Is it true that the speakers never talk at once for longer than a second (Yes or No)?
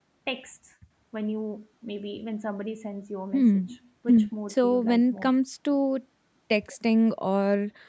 No